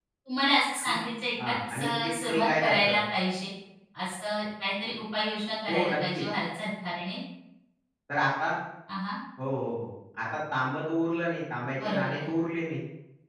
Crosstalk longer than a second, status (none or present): present